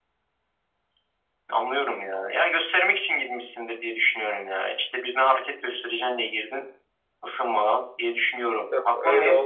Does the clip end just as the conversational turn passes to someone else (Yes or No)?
Yes